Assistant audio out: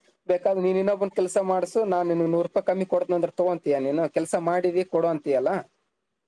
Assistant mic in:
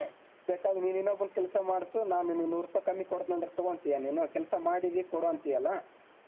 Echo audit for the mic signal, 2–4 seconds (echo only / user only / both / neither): echo only